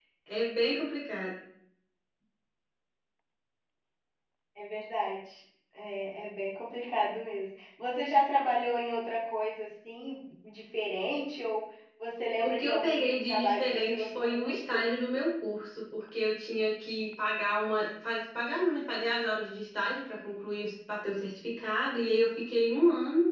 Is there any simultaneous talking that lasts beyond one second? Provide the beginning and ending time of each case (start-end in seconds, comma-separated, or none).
12.4-14.8